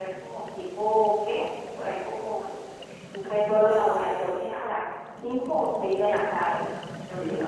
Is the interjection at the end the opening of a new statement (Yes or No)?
Yes